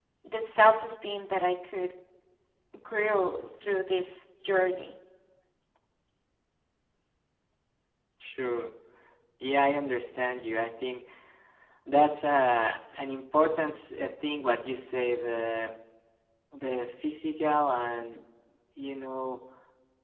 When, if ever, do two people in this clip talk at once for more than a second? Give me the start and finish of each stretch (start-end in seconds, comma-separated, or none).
none